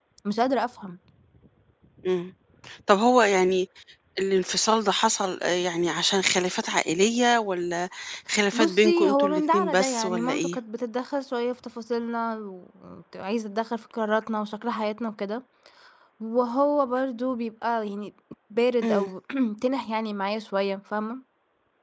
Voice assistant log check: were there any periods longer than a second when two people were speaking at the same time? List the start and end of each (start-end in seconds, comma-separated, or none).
8.5-10.6